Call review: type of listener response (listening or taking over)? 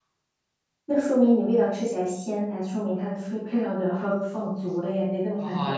taking over